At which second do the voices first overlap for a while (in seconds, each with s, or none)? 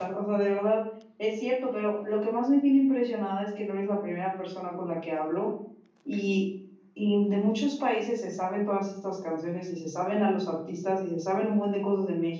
none